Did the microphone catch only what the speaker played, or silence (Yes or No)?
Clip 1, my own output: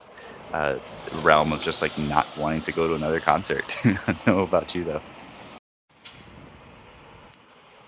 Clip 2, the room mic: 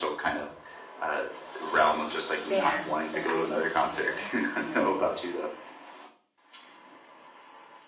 No